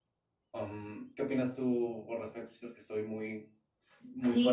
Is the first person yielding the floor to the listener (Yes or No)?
Yes